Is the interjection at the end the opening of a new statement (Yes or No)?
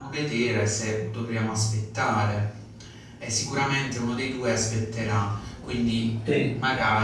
No